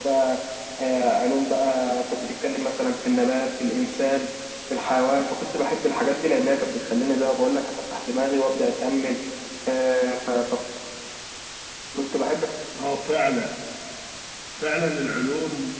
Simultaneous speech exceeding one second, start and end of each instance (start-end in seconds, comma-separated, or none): none